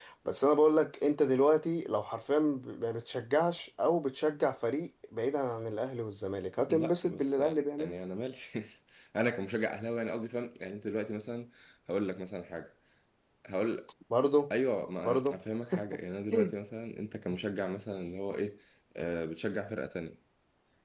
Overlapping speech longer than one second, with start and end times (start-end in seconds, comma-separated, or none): 6.7-8.0